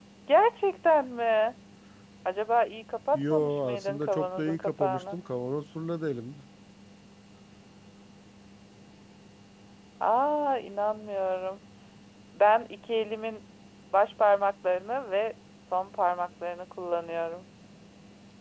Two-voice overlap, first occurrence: 3.1 s

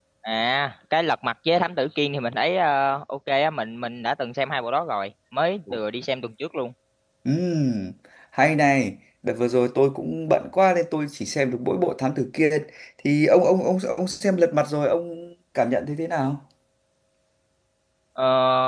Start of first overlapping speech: none

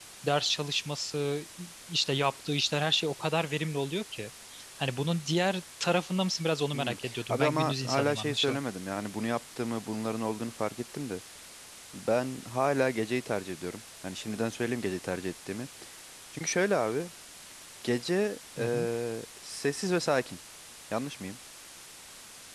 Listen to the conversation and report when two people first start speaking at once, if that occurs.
6.7 s

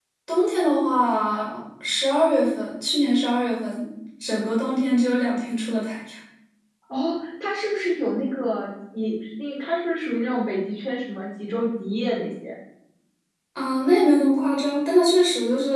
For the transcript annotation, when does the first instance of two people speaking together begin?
none

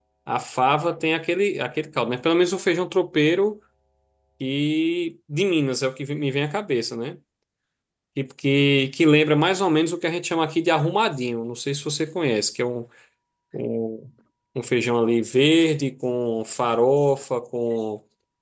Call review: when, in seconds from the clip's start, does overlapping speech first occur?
none

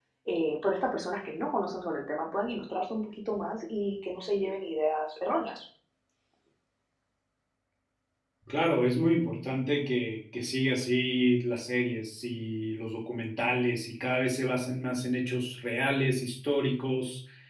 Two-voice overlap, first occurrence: none

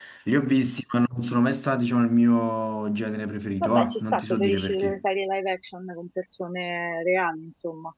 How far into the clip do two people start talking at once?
3.6 s

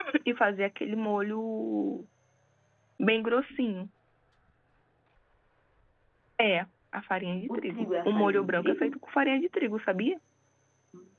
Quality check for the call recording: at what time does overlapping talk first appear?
7.5 s

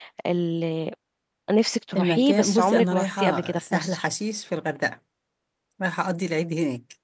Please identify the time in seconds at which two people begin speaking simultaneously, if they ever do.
2.0 s

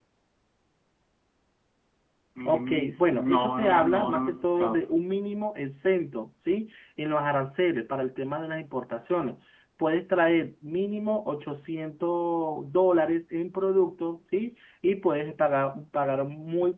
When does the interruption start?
2.5 s

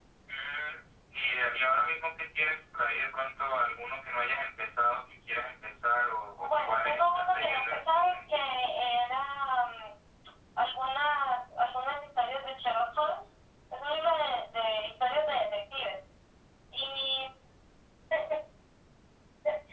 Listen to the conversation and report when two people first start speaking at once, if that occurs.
6.4 s

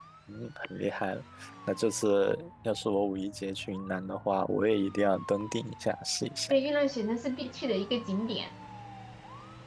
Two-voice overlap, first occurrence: none

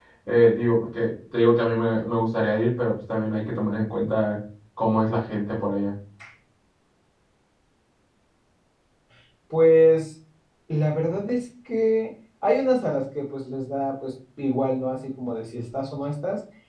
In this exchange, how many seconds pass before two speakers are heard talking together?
none

